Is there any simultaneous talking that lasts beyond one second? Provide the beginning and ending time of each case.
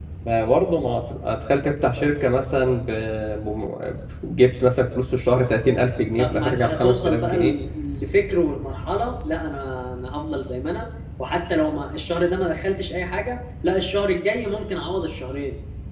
6.0-7.5

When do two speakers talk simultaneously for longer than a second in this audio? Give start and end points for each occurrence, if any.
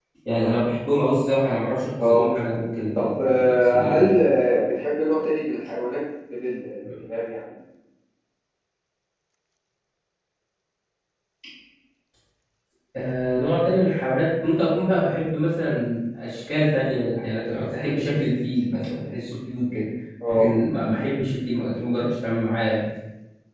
3.0-4.2

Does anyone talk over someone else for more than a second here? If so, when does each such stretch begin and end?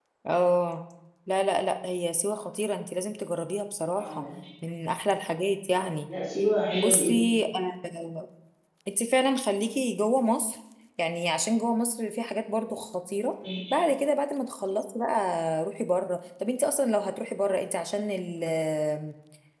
none

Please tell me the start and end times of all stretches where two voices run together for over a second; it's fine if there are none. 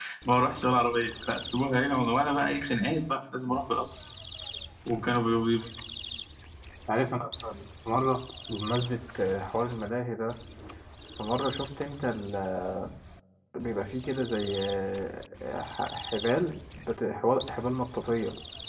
none

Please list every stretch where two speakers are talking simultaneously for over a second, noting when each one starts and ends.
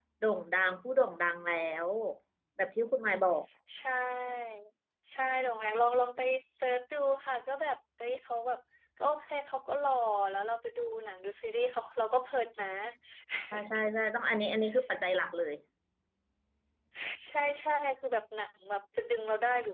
none

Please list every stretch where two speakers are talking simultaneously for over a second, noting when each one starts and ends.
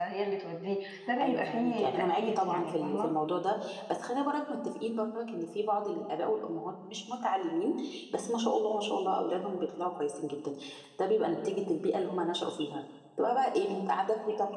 1.2-3.1

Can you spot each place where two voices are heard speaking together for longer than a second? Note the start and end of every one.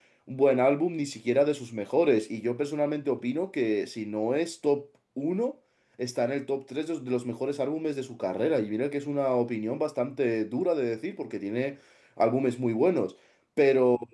none

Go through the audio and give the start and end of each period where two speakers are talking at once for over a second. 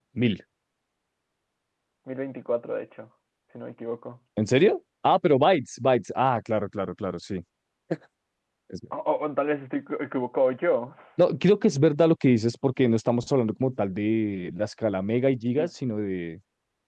none

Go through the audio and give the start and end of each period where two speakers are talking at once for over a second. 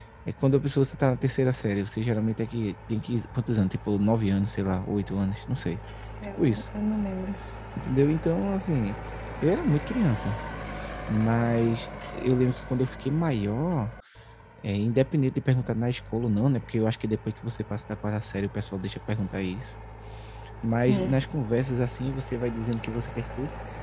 none

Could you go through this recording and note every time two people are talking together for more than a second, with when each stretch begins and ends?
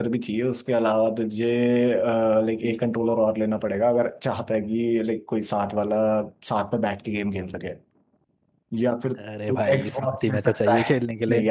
9.5-10.9

